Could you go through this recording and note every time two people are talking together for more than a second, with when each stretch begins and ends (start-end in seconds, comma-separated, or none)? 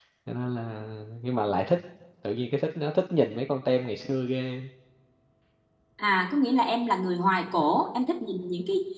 none